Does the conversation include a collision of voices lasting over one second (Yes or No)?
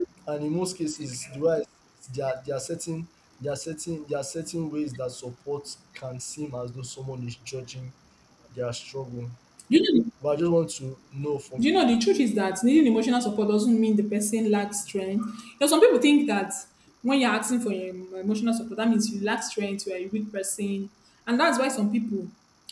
No